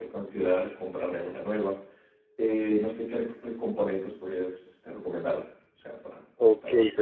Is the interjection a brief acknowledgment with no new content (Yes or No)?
No